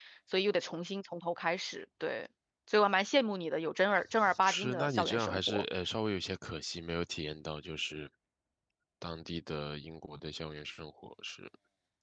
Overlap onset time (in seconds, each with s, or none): 4.2 s